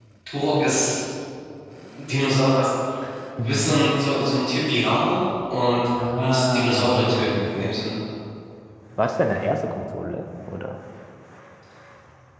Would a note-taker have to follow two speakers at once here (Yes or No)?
Yes